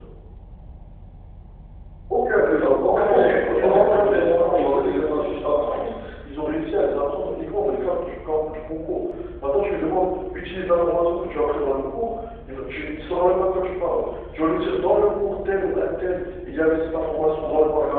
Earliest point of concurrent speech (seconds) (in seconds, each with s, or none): 2.5 s